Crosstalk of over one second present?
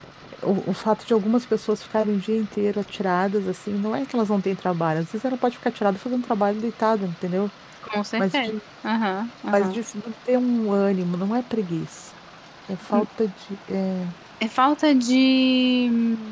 No

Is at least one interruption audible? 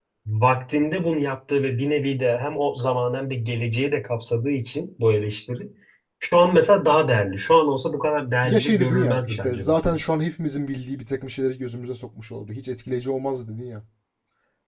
Yes, from 8.4 s

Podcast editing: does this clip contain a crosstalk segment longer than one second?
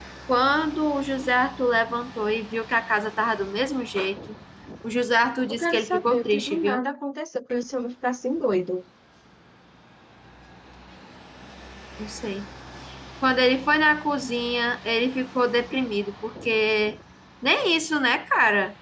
Yes, from 5.5 s

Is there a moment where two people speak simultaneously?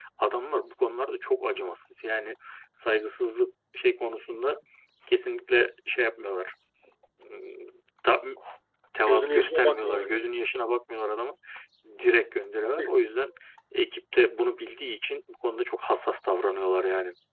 Yes, from 9.1 s

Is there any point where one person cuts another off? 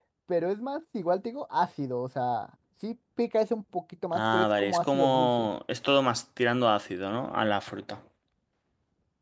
Yes, from 4.1 s

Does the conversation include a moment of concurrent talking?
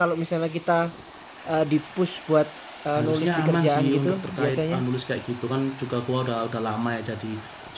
Yes, from 3.0 s

